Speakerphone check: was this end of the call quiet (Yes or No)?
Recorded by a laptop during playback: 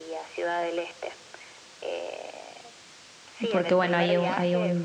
No